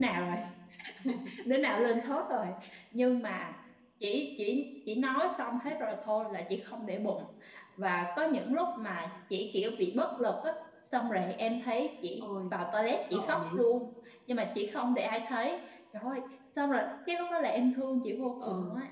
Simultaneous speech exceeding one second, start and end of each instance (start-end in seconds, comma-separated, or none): none